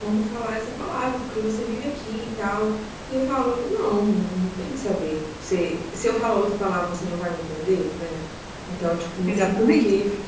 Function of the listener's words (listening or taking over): listening